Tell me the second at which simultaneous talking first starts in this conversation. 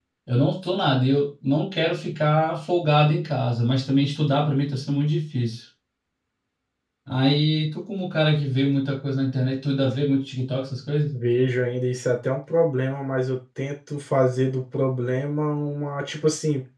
none

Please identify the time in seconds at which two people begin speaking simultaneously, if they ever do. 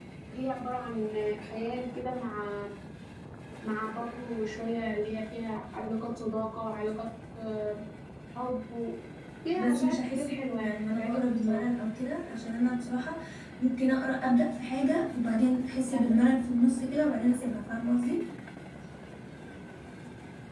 9.6 s

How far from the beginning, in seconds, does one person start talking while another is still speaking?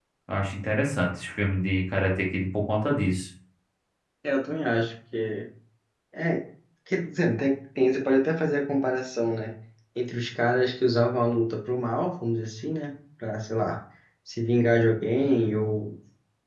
none

